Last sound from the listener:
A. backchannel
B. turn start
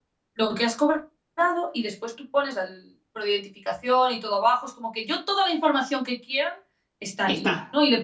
A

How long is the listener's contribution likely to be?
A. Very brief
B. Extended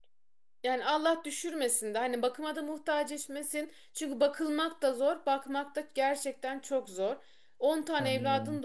A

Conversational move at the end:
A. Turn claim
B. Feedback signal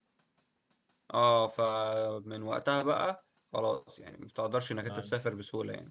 B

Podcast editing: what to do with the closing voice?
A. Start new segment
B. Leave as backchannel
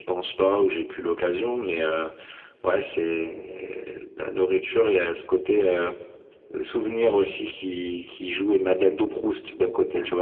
A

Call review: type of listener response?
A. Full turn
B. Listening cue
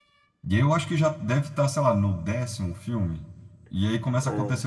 B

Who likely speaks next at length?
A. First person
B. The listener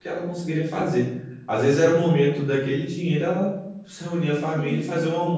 A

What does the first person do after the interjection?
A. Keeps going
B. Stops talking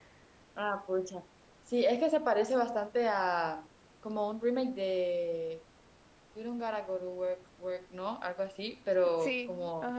A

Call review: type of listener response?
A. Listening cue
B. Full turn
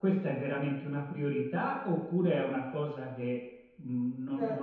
B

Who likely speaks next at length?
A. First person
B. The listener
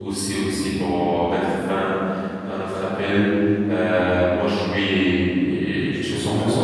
A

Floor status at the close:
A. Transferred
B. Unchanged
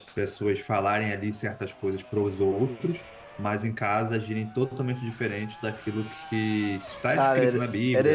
A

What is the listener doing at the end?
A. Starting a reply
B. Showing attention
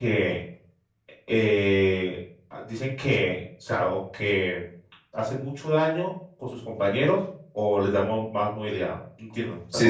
A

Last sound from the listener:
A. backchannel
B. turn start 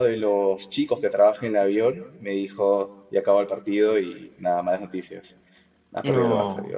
A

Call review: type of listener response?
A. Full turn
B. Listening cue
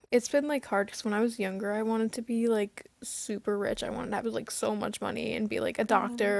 B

